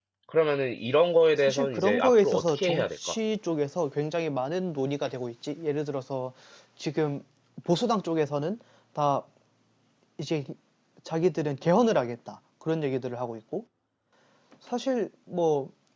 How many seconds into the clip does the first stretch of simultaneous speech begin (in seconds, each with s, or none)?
1.4 s